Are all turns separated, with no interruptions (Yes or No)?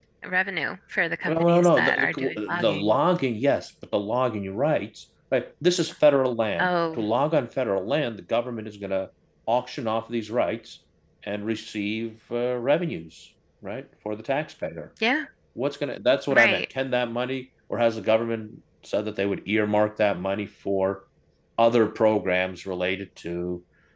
No